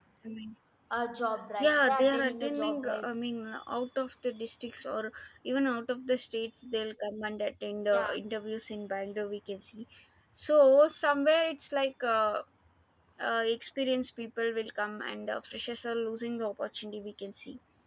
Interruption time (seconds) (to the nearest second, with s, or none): 2 s